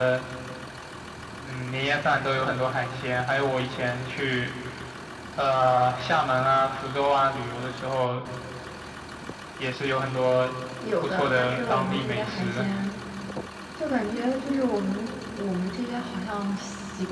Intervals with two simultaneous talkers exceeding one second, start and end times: 11.0-12.7

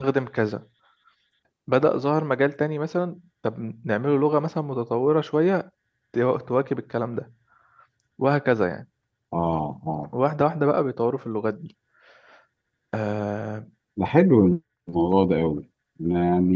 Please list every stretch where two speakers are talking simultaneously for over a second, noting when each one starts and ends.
none

